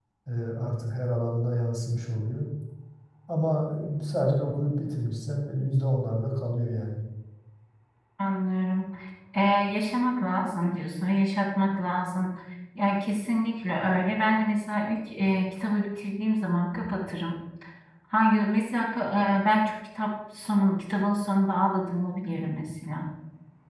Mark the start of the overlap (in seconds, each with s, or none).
none